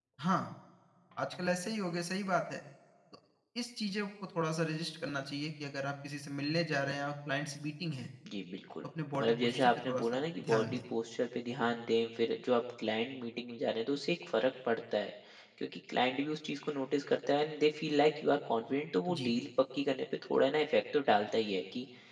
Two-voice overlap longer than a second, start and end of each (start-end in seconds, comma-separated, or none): 9.2-10.8